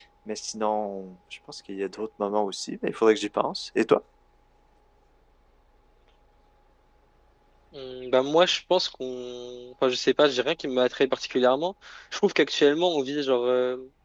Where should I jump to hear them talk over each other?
none

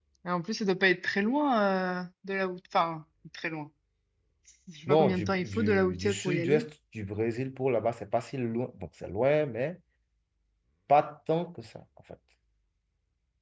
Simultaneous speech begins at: 4.9 s

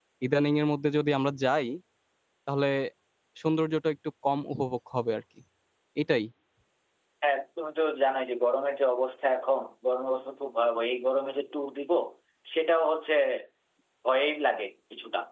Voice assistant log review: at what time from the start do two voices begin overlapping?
none

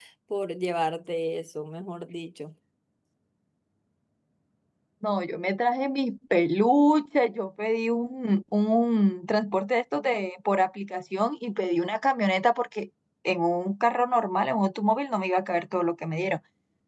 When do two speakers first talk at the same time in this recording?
none

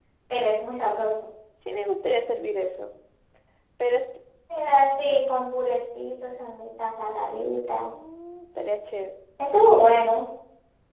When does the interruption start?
none

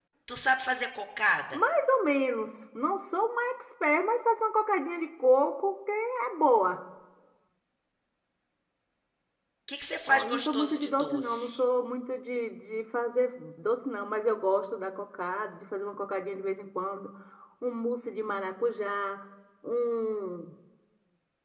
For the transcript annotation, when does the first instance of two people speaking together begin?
10.1 s

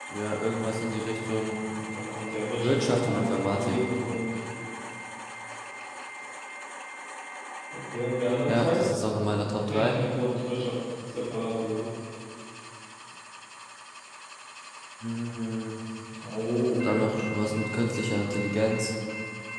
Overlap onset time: 2.6 s

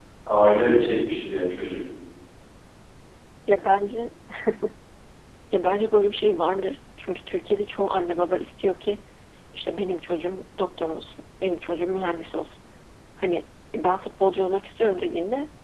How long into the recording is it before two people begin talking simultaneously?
none

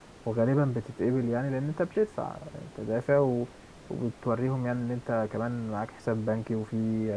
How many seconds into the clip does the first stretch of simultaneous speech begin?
none

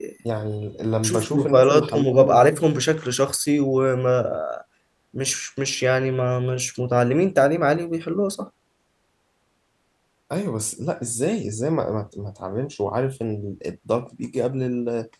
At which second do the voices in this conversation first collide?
1.0 s

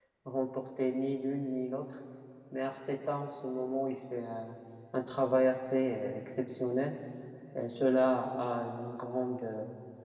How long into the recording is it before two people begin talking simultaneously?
none

